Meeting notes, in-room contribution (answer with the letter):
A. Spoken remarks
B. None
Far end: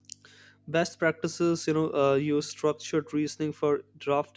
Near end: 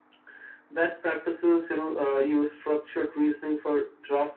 B